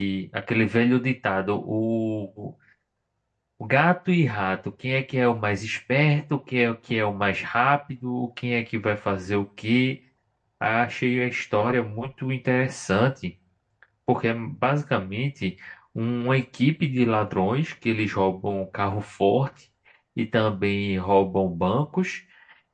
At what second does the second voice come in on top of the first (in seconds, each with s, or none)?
none